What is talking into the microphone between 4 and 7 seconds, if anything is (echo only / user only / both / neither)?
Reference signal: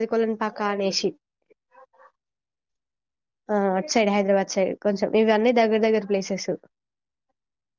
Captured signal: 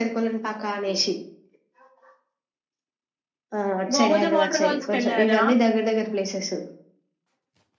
both